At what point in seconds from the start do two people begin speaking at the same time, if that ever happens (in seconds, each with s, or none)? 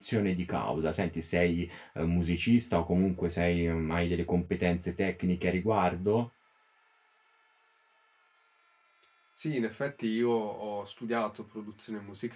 none